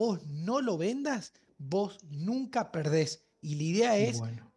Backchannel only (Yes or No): Yes